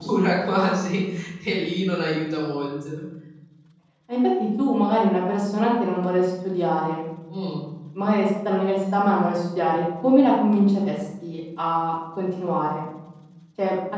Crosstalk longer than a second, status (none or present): none